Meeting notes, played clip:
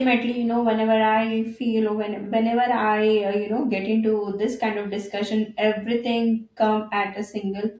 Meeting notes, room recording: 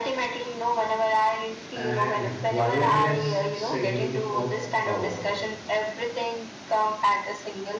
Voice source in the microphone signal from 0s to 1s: echo only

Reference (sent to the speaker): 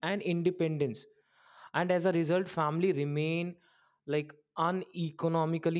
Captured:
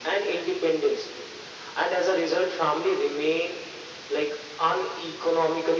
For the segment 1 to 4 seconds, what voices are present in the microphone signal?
echo only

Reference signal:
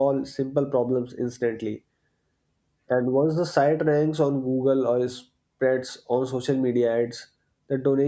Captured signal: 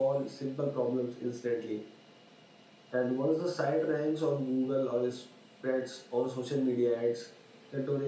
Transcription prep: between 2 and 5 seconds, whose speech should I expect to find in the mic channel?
echo only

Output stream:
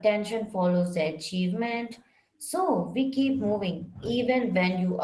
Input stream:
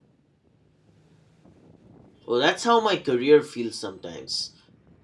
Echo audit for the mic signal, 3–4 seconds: user only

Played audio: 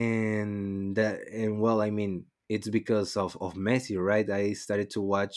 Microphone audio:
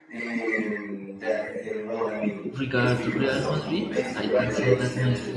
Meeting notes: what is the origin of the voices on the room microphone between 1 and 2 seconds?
echo only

